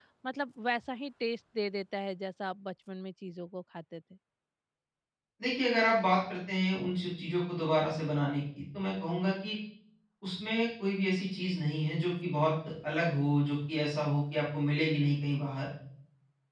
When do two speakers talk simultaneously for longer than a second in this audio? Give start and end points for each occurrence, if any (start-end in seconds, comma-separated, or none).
none